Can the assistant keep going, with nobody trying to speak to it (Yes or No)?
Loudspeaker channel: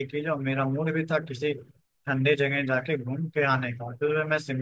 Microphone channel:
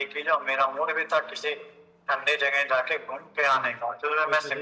No